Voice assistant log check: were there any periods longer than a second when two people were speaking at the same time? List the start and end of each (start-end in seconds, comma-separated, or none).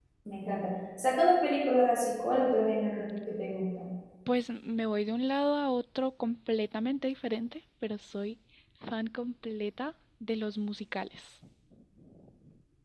none